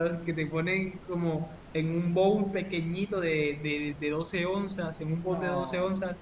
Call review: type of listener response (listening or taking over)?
listening